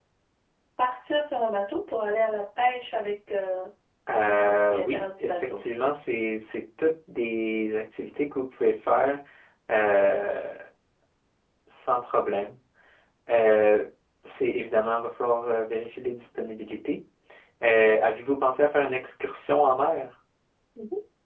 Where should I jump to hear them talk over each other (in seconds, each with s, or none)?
4.2 s